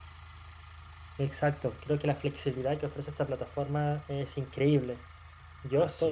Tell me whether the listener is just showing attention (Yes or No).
Yes